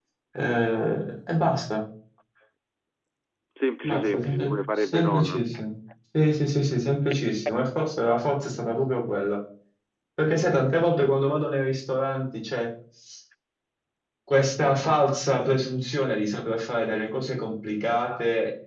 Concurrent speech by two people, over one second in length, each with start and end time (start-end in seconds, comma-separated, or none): 3.8-5.4